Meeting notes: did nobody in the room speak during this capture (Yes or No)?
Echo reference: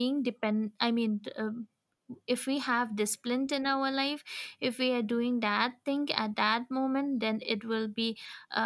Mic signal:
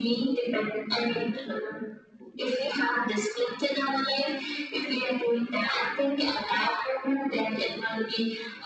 Yes